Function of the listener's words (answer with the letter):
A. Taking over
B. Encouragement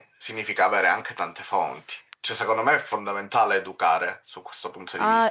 A